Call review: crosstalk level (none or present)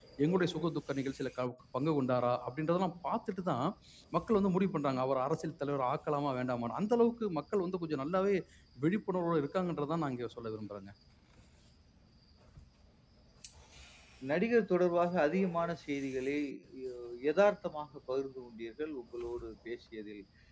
none